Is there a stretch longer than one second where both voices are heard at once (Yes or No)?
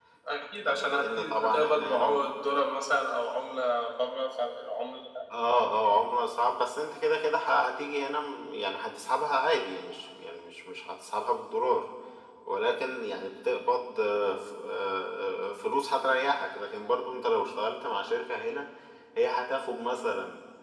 Yes